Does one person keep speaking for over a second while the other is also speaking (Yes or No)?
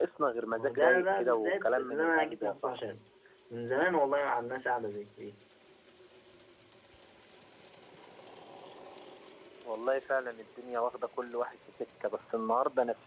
Yes